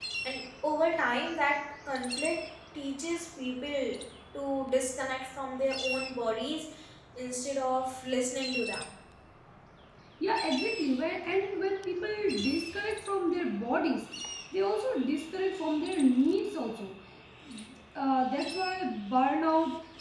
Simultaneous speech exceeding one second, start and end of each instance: none

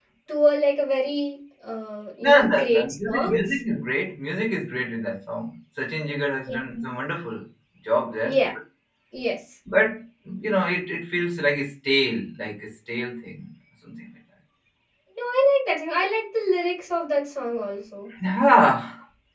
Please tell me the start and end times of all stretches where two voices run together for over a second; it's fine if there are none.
2.2-3.5

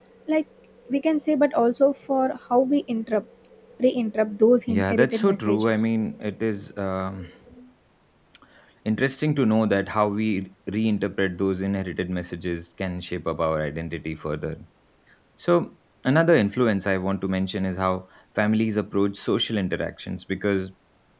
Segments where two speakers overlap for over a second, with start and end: 4.7-5.9

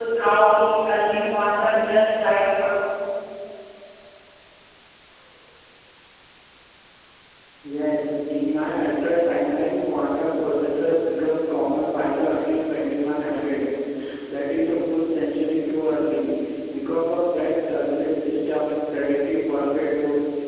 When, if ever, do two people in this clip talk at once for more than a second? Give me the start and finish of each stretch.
none

